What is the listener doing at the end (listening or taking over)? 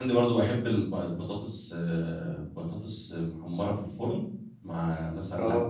listening